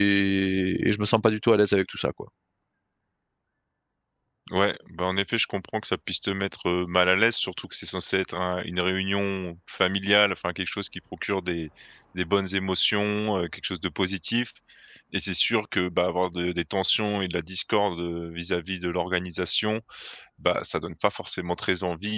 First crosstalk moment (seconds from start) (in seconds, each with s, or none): none